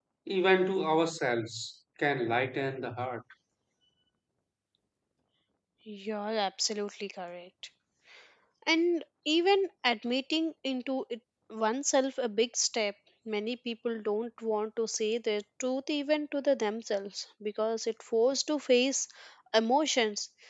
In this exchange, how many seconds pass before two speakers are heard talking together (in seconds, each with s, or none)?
none